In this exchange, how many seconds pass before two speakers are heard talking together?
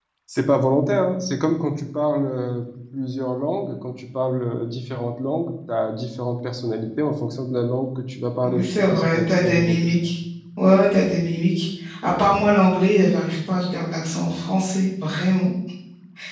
8.4 s

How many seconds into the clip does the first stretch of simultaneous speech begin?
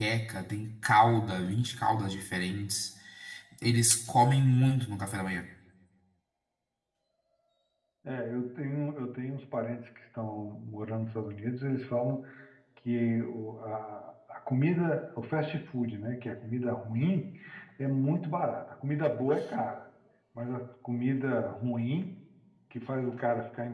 none

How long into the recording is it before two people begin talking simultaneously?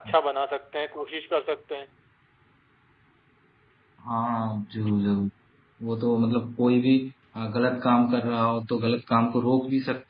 none

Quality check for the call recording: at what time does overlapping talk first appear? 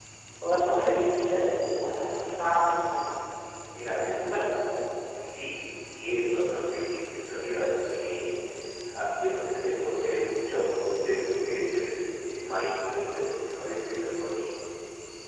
none

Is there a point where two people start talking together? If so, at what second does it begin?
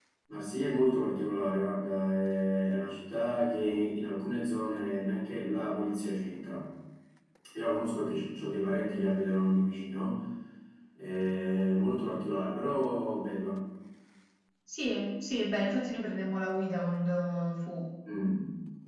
none

